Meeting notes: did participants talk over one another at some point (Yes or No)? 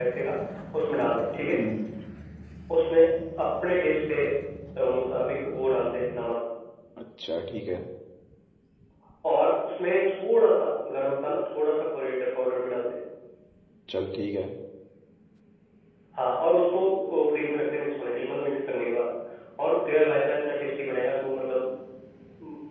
No